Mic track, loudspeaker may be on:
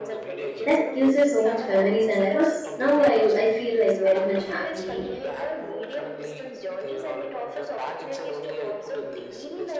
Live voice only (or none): that gives us so much memories and i was now i i feel like very much happy